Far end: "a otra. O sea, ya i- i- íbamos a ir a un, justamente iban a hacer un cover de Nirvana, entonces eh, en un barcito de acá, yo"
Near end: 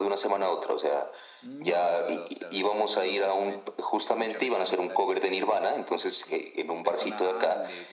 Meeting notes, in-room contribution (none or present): present